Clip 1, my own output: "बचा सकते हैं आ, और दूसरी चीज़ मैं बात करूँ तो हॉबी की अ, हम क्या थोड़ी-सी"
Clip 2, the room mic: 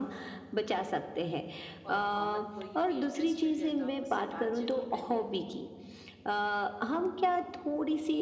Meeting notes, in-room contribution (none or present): present